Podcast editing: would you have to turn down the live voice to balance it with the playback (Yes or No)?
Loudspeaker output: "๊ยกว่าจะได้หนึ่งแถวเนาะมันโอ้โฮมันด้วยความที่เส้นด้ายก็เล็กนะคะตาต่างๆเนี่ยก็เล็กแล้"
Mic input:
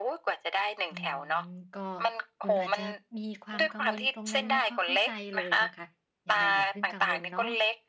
No